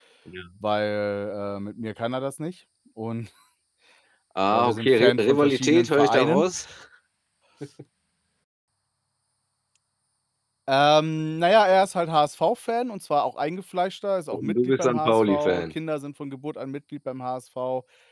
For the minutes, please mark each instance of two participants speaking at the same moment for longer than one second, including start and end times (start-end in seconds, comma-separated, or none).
4.5-6.4, 14.3-15.7